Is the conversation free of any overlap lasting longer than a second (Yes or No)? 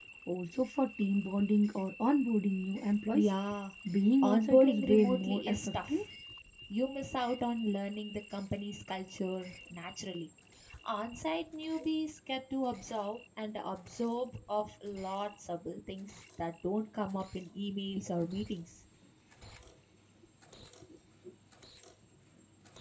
No